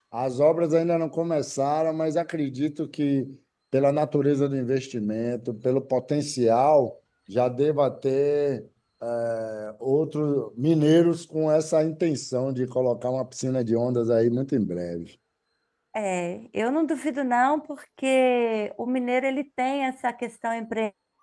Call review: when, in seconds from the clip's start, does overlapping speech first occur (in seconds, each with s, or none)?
none